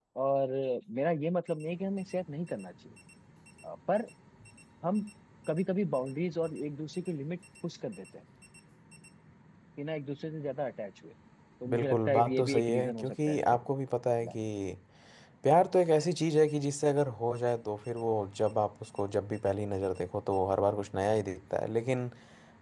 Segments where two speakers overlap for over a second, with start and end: 11.7-13.6

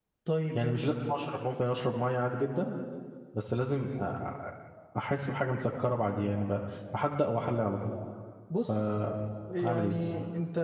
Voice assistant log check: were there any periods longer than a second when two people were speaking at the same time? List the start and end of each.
none

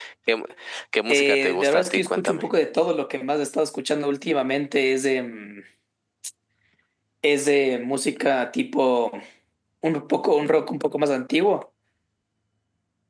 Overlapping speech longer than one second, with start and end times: 1.1-2.5

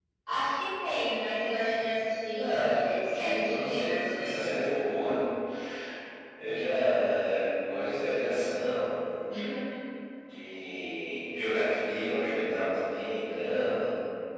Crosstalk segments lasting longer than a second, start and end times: 2.4-4.5

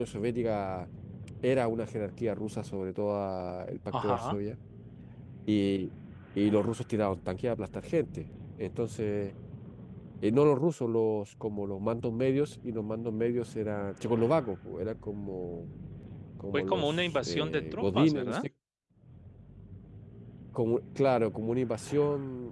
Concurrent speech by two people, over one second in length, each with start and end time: 16.5-18.4

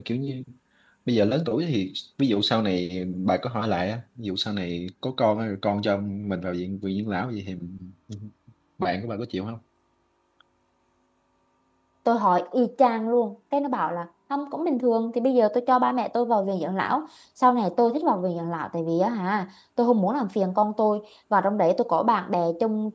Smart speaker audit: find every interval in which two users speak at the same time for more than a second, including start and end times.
none

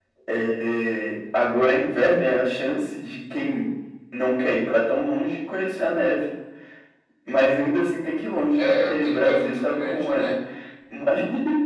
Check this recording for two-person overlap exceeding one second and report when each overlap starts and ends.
8.6-10.3

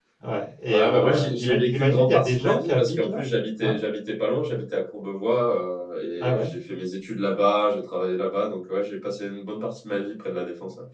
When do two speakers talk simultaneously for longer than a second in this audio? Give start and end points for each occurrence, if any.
0.7-3.2

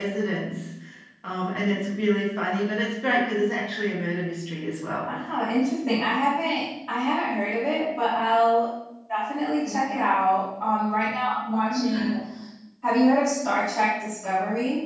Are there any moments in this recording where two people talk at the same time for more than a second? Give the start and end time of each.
none

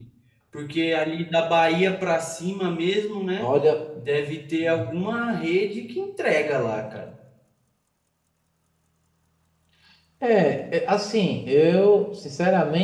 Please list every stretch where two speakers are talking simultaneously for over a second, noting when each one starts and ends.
none

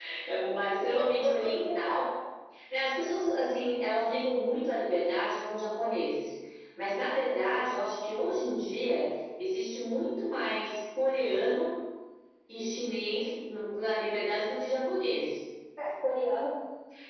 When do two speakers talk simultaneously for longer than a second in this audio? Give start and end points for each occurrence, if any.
0.8-2.0

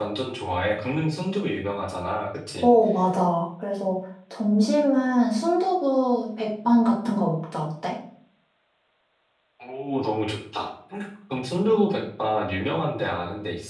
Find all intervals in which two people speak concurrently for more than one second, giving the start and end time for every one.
none

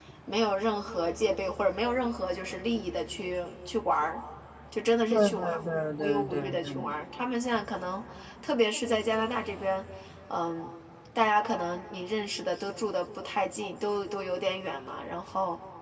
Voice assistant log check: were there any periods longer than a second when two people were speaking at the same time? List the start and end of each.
5.1-6.9

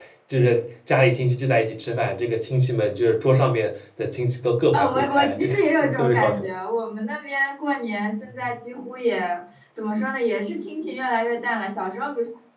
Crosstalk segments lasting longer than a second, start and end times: 4.7-6.4

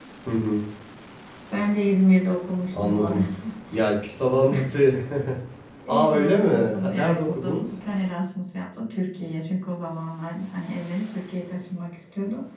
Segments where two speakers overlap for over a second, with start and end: 5.9-7.8

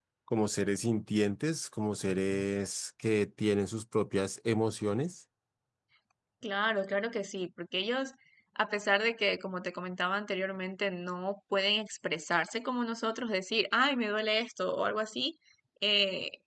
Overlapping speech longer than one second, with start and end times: none

